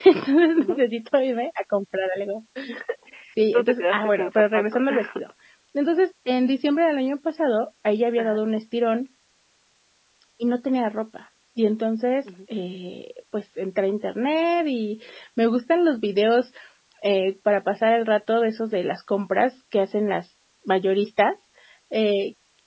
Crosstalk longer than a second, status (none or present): present